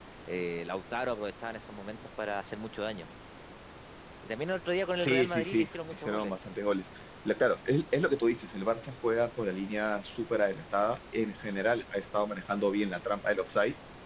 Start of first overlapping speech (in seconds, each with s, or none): 4.9 s